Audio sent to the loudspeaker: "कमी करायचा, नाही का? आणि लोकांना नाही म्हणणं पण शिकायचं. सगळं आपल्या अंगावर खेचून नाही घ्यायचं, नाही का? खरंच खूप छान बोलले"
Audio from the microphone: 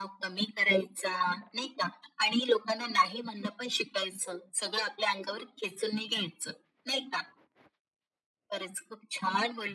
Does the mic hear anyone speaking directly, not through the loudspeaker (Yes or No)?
No